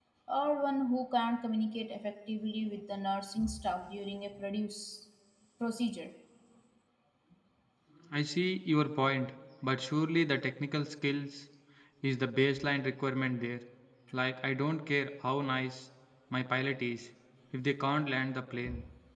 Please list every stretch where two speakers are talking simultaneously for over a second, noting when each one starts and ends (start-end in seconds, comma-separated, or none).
none